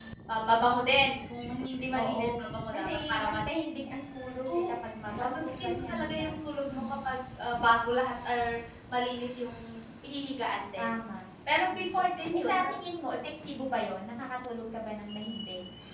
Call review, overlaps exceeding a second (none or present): present